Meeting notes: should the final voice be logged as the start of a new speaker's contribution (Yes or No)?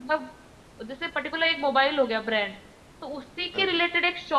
No